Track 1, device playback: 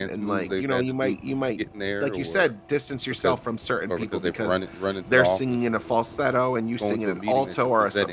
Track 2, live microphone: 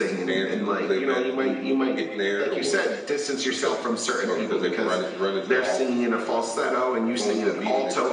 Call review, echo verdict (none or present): present